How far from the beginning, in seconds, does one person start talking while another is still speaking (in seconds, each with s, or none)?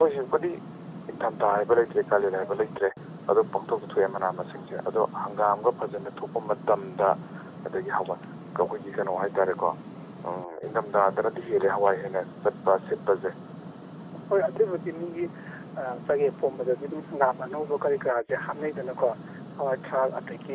none